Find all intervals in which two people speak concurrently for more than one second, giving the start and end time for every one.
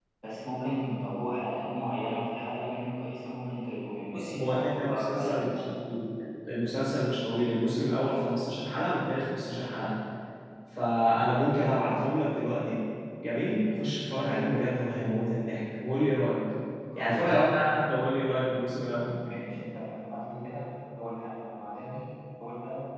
4.1-5.6

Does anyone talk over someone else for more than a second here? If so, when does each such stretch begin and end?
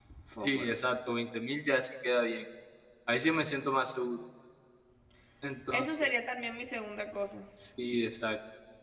none

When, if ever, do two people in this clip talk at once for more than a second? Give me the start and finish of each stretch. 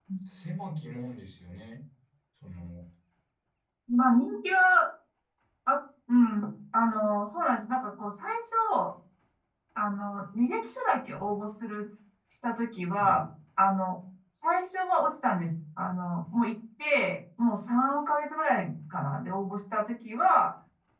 none

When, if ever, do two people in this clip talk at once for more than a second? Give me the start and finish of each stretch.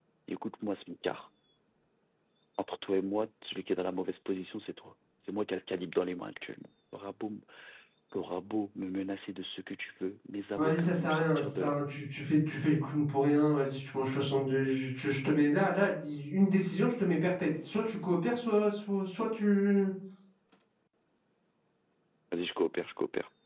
10.6-11.8

